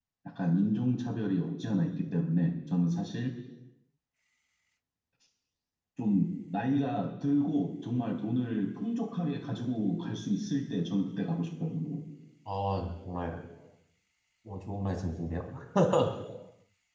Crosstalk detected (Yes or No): No